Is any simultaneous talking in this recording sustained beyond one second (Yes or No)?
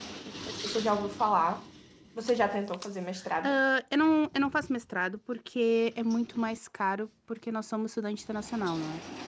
No